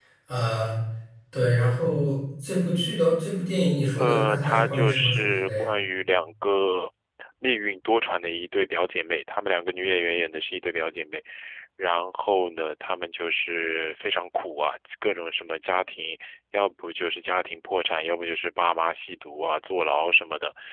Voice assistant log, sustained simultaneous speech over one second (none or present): present